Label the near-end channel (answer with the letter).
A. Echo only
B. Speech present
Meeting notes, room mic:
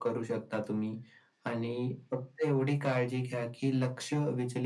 A